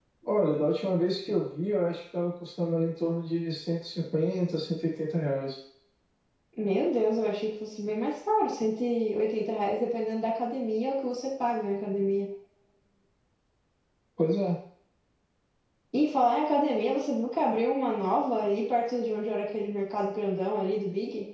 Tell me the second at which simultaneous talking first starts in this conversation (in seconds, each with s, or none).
none